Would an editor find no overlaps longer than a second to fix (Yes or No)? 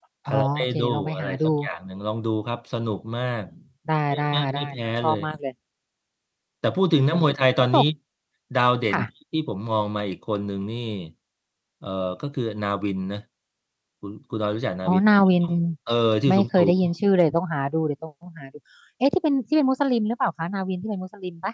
No